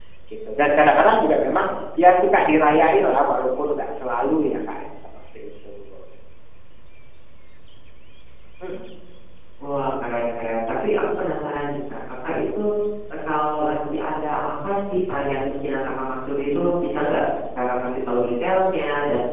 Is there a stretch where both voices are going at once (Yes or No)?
No